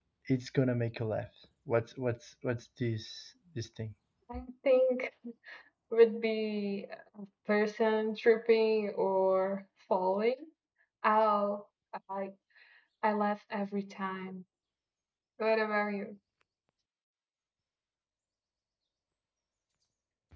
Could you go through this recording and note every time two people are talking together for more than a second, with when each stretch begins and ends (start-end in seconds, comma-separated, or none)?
none